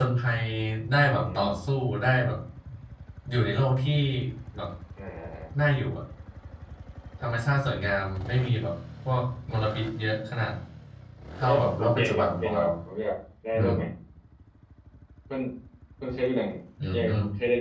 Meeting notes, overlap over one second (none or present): present